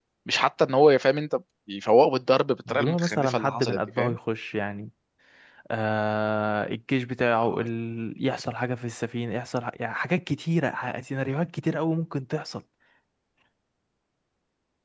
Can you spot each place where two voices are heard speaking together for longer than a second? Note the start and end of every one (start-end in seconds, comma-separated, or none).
2.7-4.2